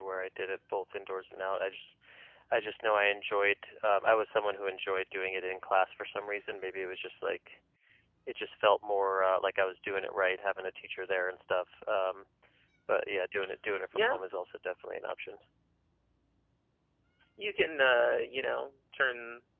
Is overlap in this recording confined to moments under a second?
Yes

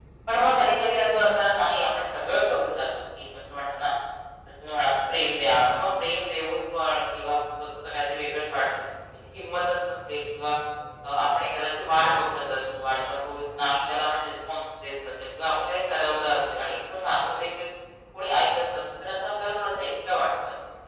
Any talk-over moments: No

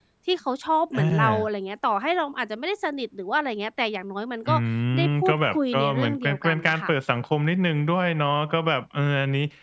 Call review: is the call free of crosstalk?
No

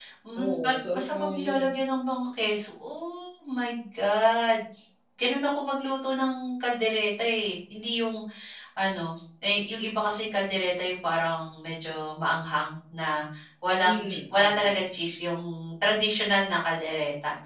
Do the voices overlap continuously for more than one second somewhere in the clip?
Yes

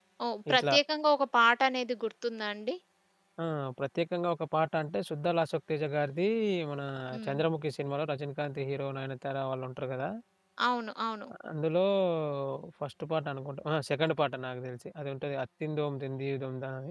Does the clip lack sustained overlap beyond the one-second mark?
Yes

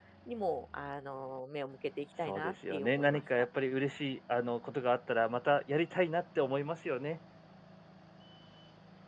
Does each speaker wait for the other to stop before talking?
No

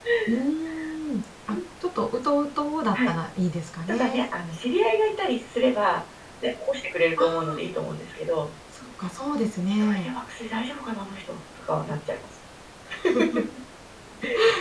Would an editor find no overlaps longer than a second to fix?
Yes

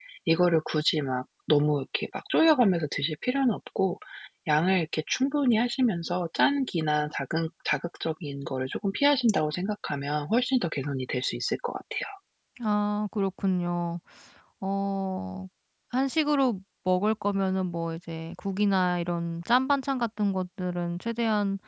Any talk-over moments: No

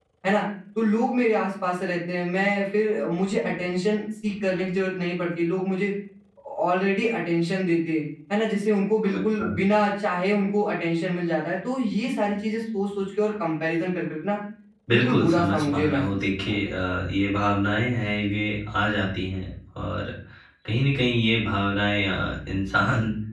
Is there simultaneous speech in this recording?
Yes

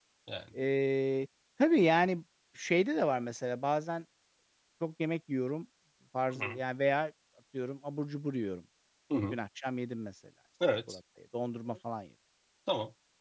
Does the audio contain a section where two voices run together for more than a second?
No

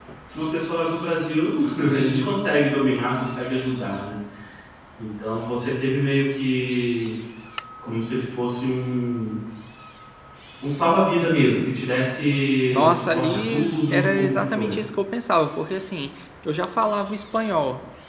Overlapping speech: Yes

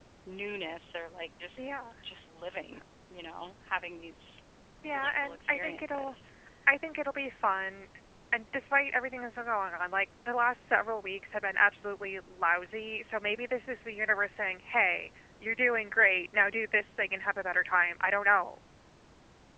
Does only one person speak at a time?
No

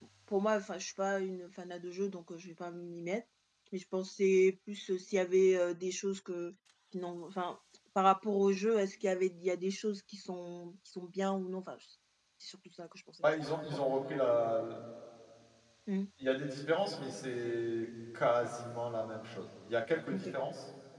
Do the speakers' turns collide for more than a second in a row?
No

